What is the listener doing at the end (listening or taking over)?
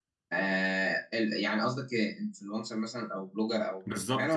taking over